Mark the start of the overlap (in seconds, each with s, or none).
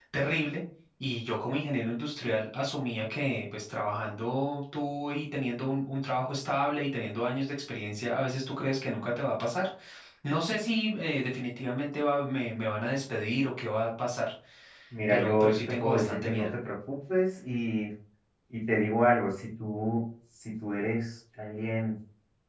15.1 s